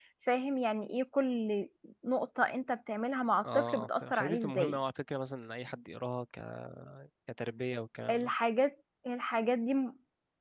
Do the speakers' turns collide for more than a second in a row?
Yes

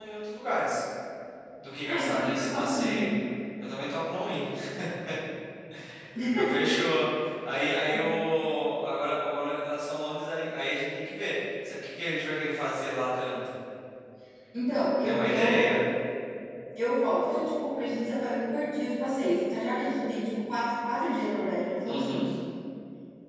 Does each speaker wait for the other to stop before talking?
No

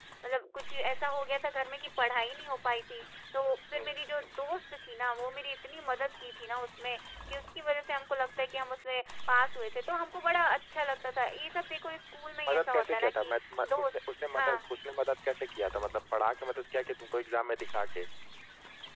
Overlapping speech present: Yes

